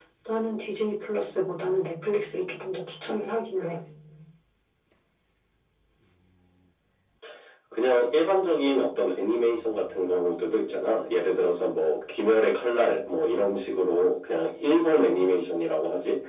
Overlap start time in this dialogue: none

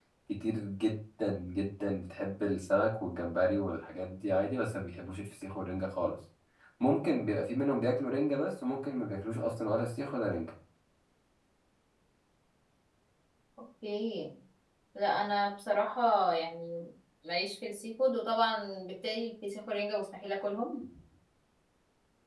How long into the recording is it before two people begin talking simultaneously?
none

